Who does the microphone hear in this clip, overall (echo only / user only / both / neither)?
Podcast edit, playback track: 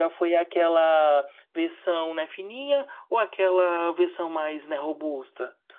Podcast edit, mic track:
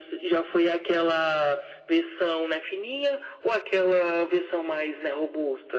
echo only